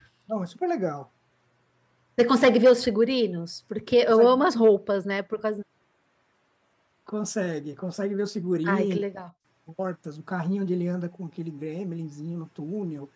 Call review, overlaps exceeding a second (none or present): none